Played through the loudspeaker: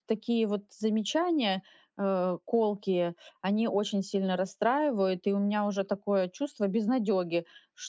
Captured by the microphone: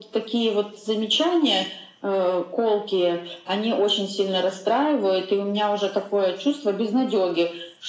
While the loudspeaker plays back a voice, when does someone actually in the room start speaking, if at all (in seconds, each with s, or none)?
none